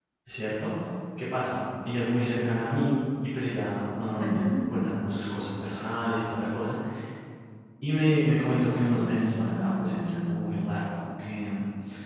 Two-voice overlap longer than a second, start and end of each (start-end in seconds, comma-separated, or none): 8.9-10.5